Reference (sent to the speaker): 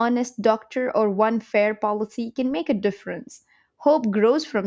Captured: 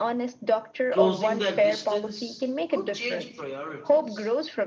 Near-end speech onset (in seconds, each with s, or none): 0.9 s